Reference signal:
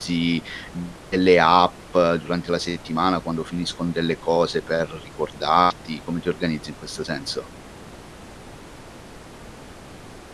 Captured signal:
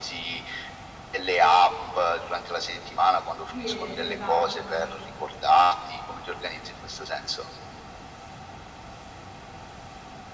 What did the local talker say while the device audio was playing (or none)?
Sì, esatto.